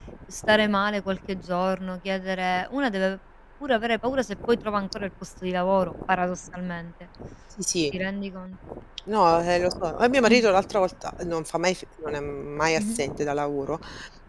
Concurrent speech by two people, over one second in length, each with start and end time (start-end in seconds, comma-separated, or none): none